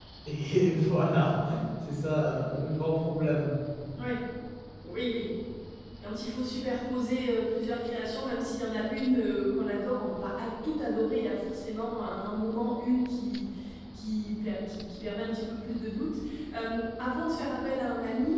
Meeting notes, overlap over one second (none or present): none